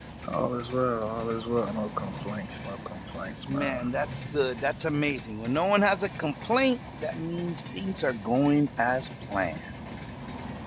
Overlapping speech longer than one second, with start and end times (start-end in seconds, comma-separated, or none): none